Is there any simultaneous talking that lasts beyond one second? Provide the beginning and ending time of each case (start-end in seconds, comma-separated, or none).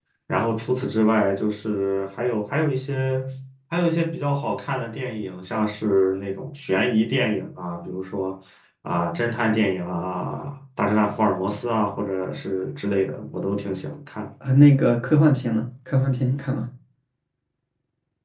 none